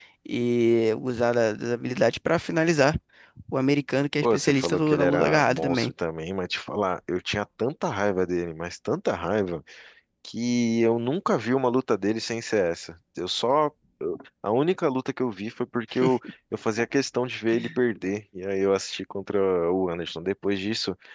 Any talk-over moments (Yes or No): Yes